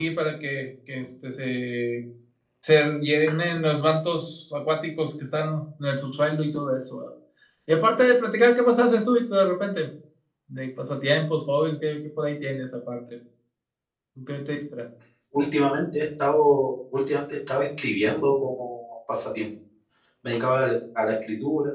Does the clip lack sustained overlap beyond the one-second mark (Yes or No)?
Yes